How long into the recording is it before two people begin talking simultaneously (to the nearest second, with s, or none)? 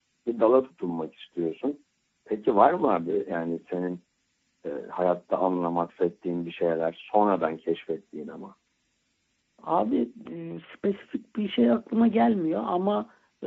none